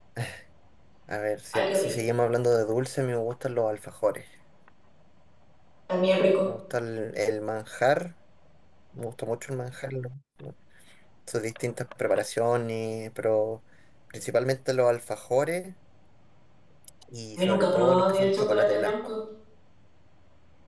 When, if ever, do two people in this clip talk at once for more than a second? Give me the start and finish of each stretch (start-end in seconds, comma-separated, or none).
17.4-18.9